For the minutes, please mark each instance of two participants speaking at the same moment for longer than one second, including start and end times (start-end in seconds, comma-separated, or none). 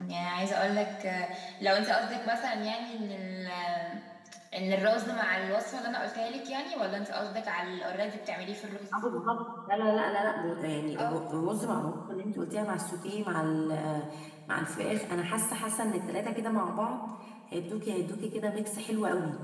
none